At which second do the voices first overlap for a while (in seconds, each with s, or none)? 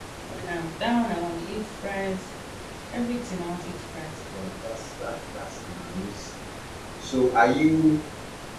none